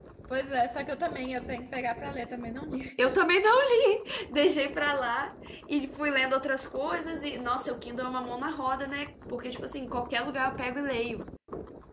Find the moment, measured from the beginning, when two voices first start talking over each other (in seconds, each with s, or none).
none